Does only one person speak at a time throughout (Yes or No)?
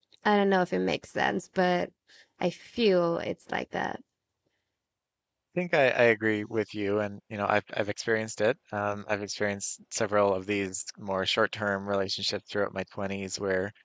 Yes